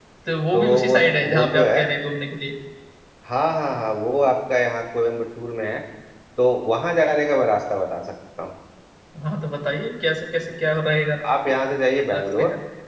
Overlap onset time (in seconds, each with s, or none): 0.5 s